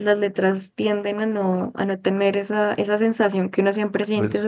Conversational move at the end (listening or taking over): listening